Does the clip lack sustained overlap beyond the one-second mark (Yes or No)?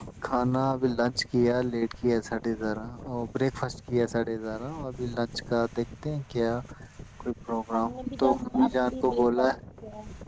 No